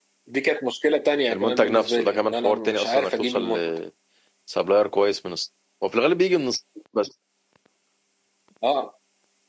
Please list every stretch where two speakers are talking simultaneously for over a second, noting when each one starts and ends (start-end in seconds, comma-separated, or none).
1.3-3.5